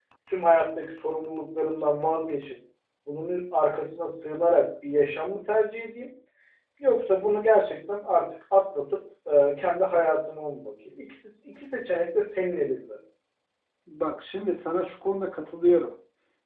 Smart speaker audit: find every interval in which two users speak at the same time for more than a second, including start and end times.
none

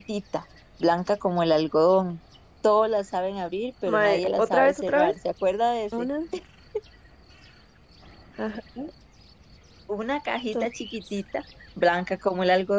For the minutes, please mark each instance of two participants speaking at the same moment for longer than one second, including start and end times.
3.9-5.1

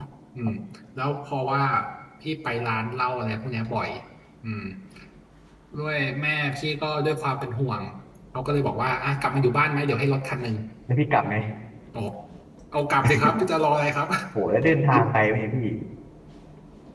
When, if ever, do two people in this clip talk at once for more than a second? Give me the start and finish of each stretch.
none

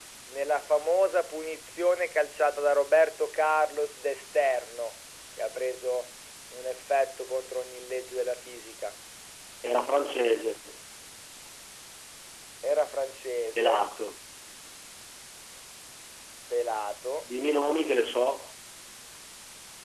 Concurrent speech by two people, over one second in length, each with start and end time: none

